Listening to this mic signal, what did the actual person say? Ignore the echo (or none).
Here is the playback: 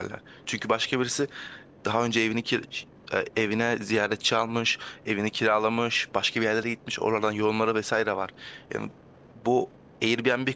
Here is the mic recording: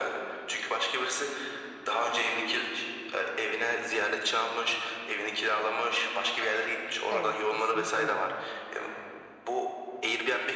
evet kesinlikle doğru.